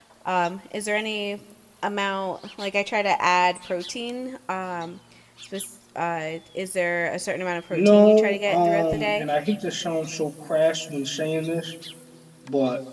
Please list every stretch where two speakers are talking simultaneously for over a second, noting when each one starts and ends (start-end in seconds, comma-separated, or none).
7.7-9.2